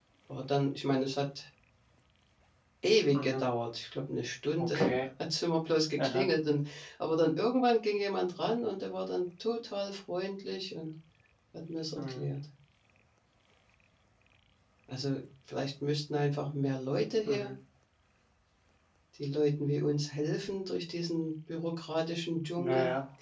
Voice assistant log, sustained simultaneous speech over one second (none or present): none